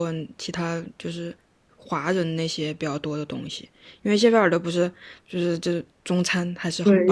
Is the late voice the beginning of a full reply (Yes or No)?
Yes